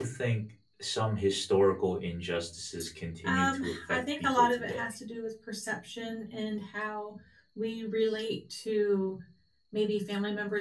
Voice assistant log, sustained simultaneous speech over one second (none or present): present